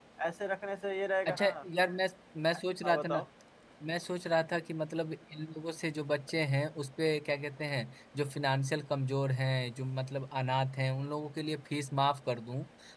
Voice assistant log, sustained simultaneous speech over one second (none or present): none